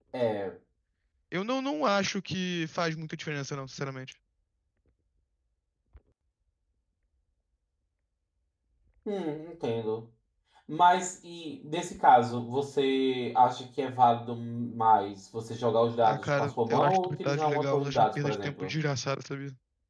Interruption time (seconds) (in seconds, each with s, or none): 16.0 s